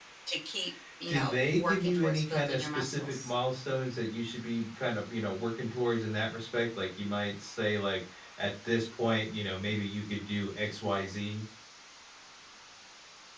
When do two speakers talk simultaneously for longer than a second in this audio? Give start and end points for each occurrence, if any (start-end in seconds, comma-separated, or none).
1.1-3.3